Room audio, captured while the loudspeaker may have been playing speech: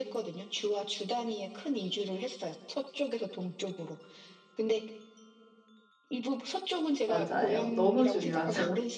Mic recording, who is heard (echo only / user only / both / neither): both